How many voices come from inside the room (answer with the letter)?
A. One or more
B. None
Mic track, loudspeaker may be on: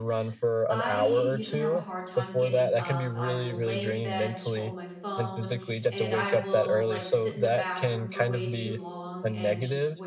A